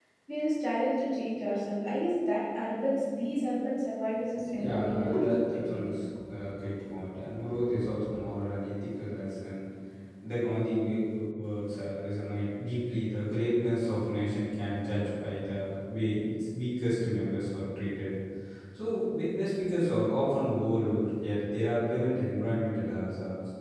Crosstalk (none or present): present